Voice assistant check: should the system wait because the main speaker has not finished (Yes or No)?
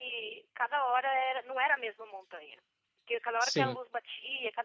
Yes